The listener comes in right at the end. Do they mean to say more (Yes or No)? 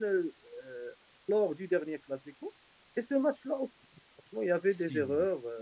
No